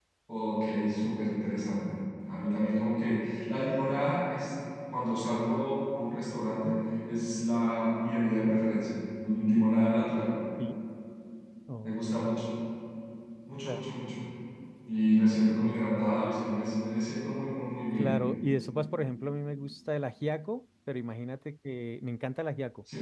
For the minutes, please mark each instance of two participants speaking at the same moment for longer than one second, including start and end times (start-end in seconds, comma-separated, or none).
none